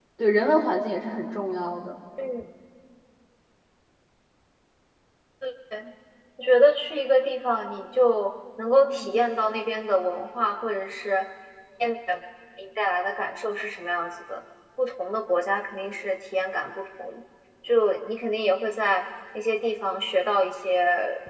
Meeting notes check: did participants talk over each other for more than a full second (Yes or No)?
No